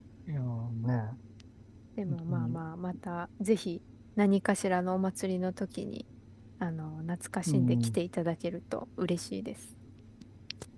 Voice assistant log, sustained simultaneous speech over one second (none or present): none